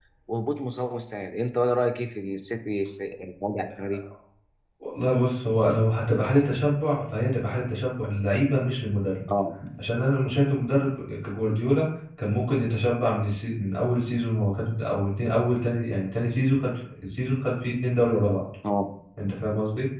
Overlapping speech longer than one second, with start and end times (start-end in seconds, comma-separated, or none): none